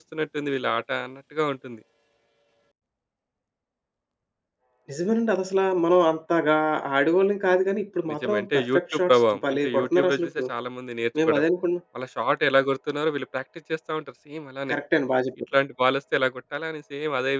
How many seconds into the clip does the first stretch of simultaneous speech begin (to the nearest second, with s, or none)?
8 s